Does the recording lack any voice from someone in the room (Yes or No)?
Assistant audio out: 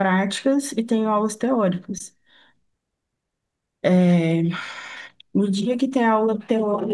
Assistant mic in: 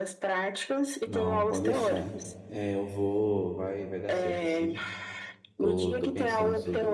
No